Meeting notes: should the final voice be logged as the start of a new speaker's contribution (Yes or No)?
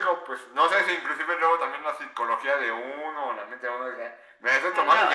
No